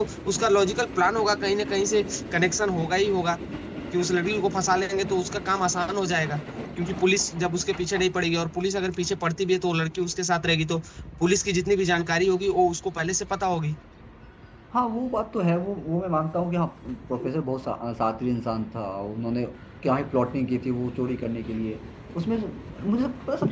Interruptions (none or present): none